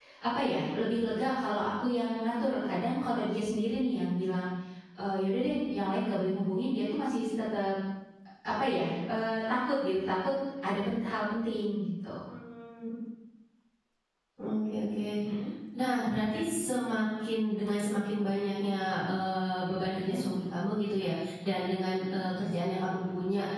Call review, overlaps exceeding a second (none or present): none